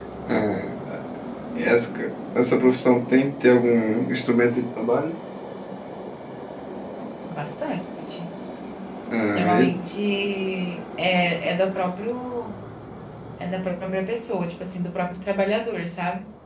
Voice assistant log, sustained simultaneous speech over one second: none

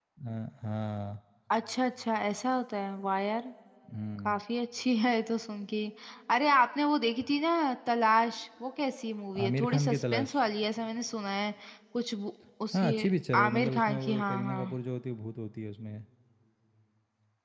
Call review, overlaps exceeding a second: present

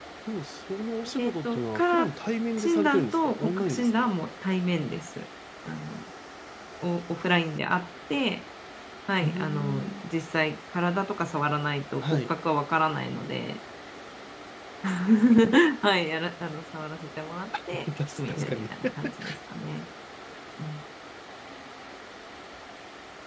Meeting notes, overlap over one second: present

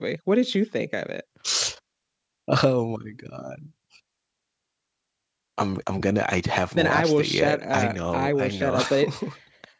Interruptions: present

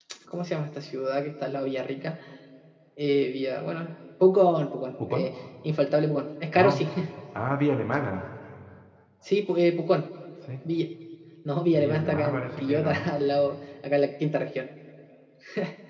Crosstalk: present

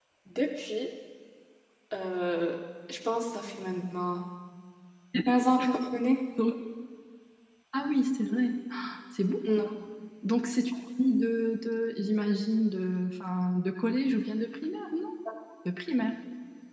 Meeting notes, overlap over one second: none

